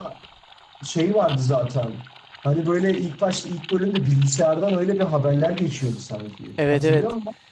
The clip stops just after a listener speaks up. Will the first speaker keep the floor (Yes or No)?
No